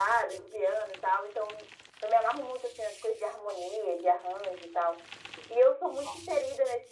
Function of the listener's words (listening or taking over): listening